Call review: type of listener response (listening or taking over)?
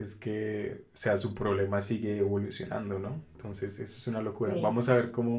listening